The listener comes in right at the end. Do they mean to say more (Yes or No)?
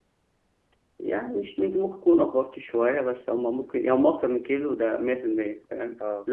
No